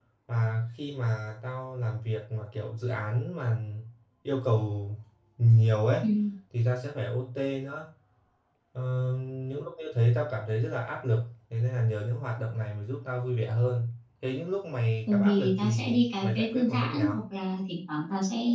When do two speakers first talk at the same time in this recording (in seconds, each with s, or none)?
15.1 s